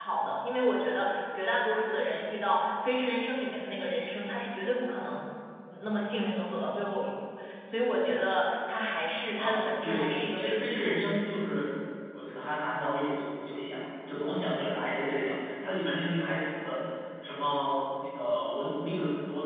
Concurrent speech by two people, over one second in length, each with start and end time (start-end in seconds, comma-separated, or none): 9.4-10.9